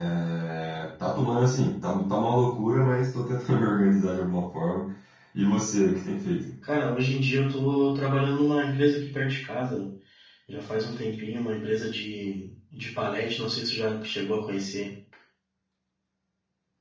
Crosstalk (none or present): none